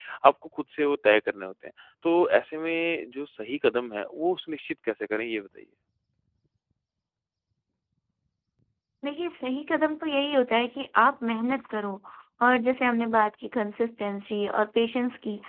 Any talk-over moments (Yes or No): No